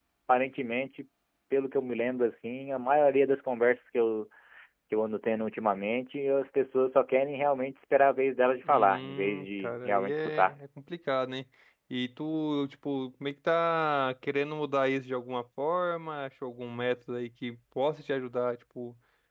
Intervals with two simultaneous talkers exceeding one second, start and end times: 8.7-10.6

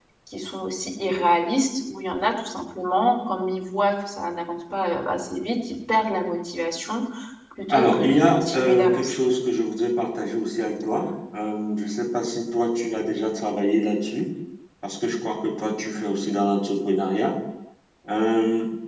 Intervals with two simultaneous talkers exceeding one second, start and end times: 7.7-9.2

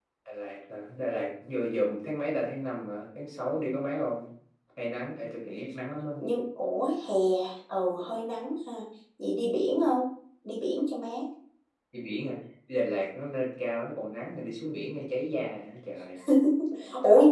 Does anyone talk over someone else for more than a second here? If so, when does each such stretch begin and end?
none

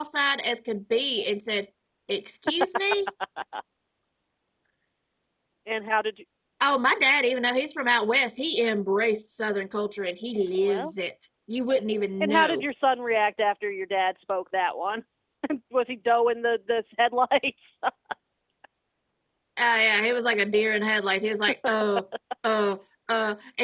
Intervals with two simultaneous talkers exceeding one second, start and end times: none

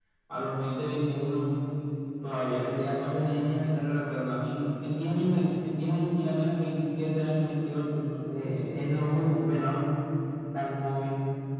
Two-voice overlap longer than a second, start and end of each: none

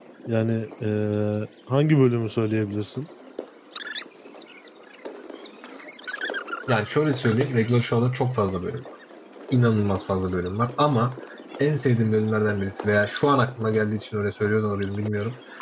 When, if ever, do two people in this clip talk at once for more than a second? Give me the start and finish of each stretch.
none

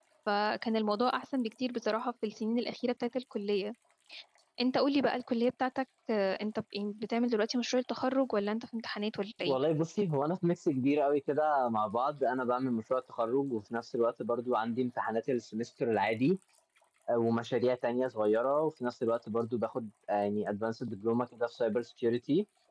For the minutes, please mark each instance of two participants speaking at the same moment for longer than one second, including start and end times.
none

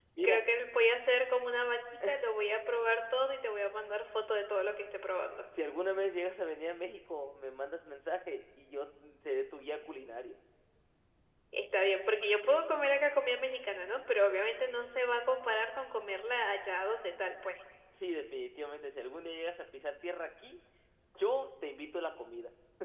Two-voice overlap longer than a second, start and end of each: none

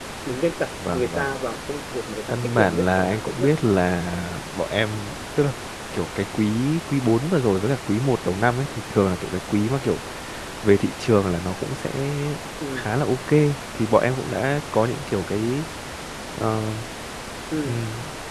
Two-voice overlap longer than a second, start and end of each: 2.3-3.5

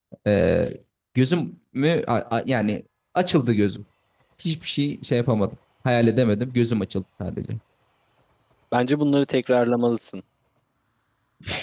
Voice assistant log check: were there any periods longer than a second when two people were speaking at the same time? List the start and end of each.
none

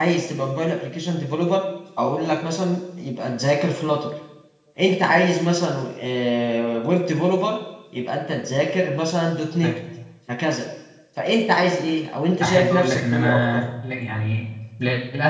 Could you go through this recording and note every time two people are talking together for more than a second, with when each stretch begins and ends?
12.4-13.6

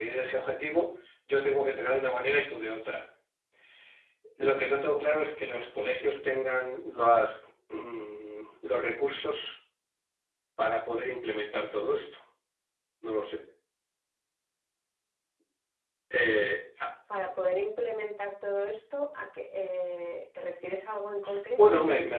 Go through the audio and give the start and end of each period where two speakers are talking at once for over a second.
none

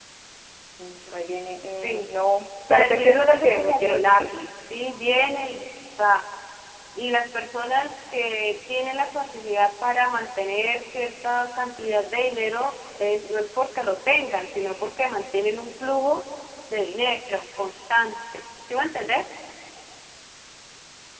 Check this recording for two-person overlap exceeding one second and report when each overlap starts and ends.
2.7-4.2

